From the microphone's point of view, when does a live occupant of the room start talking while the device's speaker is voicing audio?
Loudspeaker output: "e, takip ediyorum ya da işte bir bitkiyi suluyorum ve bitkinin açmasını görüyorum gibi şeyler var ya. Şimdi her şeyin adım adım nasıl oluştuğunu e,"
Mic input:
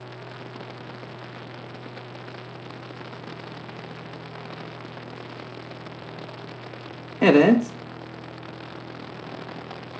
7 s

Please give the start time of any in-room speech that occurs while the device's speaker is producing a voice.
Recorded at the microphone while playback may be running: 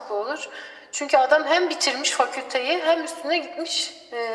none

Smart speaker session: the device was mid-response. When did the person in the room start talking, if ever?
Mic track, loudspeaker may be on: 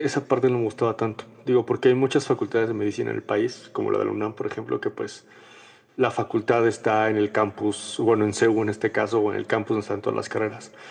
none

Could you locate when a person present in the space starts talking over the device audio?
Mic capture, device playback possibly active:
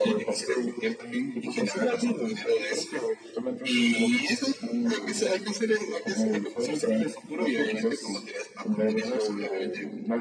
none

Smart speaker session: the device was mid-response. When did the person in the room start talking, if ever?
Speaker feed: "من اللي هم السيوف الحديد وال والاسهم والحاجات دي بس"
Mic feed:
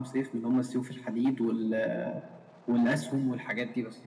none

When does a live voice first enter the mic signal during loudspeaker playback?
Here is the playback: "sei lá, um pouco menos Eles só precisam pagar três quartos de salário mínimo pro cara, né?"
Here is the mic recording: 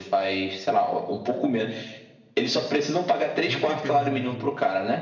3 s

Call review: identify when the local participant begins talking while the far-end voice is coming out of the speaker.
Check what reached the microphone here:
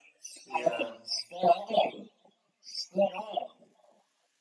0 s

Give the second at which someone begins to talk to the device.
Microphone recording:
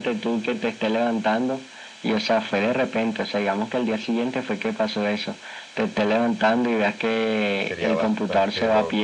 8 s

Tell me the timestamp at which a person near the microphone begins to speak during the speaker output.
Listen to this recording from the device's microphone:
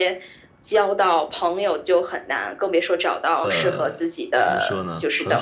3 s

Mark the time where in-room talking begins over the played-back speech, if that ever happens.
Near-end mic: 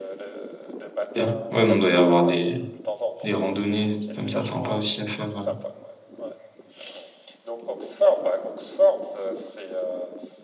1 s

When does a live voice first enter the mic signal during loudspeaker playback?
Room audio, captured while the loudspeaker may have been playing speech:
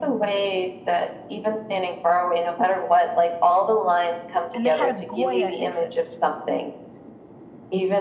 5 s

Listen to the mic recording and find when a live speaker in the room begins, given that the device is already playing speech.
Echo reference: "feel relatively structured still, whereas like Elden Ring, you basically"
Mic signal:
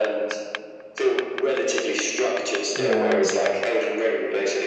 3 s

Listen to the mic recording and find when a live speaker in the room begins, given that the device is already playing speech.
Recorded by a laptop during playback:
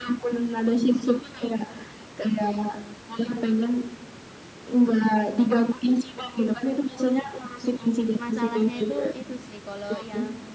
8 s

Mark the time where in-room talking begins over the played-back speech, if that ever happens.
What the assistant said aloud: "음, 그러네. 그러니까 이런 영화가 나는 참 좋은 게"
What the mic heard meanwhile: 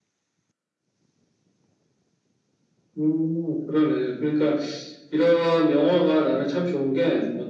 none

